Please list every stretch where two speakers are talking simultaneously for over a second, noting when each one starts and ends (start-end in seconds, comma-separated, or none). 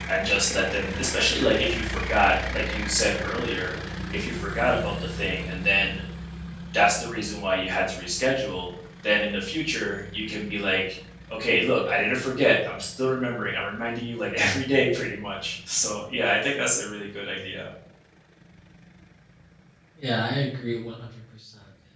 none